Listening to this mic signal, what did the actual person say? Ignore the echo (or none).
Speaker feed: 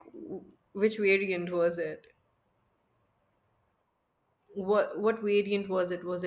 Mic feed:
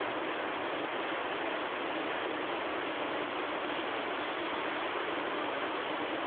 none